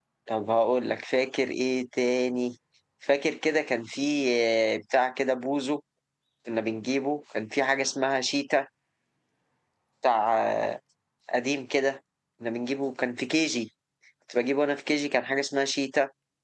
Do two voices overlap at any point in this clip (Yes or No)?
No